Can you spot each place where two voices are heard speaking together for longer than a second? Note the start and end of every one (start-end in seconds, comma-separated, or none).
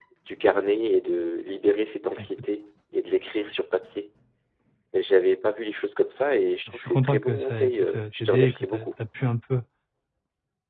6.7-8.9